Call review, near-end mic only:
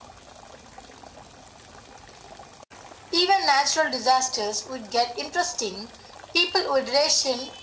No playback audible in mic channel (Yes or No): No